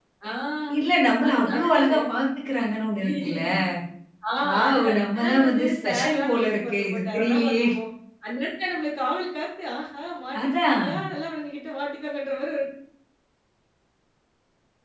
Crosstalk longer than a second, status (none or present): present